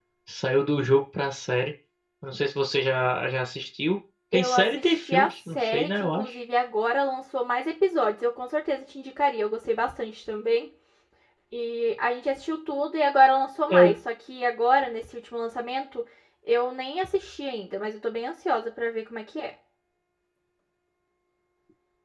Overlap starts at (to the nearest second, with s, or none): 4 s